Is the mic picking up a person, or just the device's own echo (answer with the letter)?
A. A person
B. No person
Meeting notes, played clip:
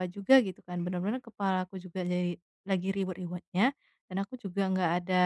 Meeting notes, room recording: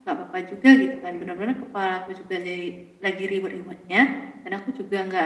B